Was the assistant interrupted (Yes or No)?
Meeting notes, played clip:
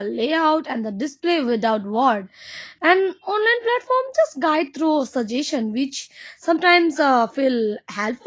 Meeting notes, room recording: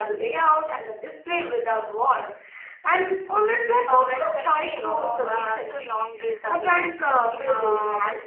Yes